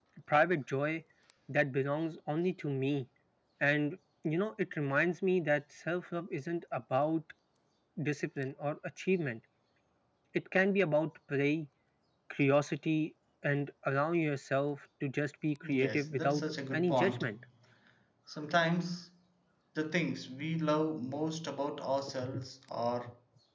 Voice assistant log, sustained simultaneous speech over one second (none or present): present